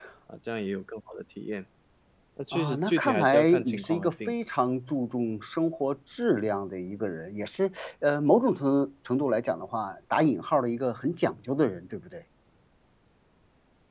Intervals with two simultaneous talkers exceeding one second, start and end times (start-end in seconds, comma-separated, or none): 2.5-4.3